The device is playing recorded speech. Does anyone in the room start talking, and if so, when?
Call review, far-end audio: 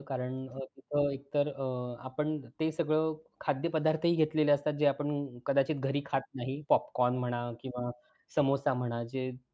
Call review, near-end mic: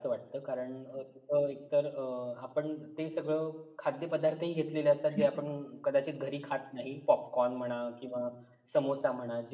5.2 s

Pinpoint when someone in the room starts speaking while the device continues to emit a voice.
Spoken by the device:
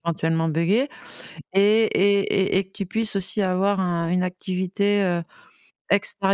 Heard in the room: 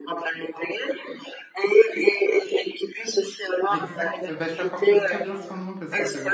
3.7 s

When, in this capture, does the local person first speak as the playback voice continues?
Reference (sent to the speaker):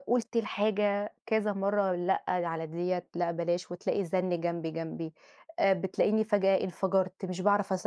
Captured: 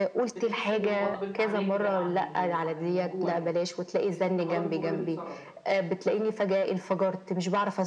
0.3 s

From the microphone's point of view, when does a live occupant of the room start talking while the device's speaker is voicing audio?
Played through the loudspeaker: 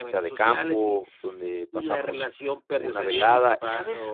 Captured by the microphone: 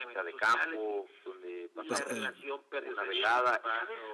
1.9 s

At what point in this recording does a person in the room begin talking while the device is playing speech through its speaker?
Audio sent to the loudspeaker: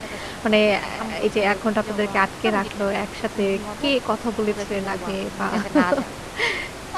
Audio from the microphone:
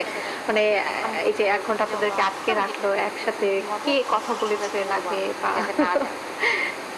none

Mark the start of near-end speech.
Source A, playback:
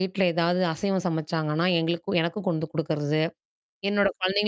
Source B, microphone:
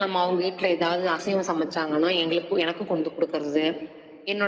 none

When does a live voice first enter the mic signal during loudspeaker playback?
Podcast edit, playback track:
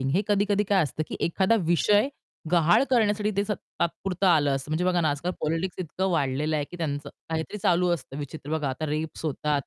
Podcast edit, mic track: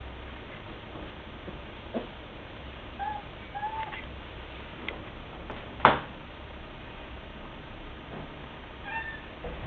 none

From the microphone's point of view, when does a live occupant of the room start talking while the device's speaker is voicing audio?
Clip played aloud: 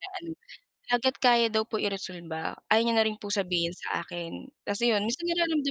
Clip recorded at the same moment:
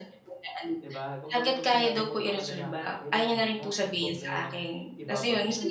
0.8 s

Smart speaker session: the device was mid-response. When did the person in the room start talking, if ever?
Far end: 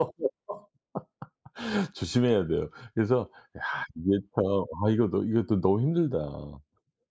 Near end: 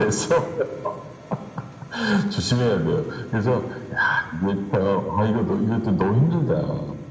none

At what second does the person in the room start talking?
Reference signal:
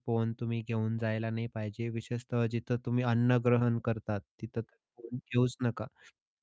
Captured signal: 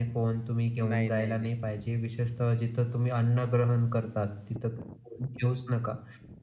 0.8 s

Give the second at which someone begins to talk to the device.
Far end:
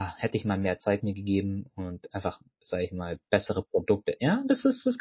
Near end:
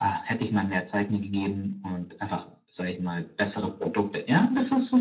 none

